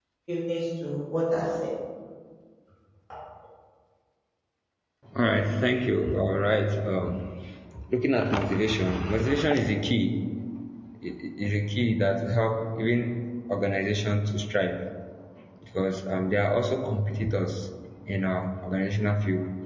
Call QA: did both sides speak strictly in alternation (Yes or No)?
Yes